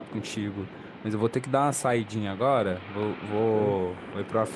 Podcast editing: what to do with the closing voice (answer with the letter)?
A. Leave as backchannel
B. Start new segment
A